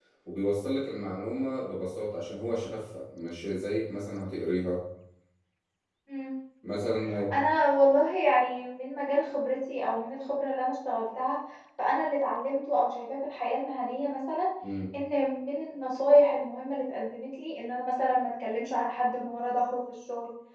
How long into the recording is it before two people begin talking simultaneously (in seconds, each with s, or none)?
none